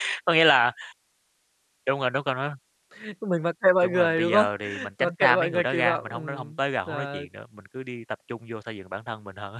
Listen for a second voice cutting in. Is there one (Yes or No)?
Yes